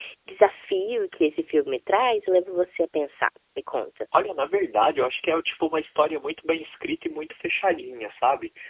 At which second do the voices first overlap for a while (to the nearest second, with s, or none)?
none